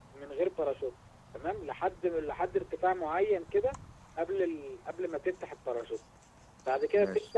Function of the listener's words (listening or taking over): listening